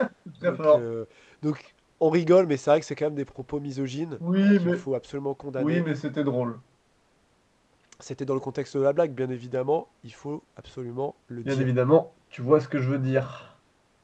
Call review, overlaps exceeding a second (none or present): none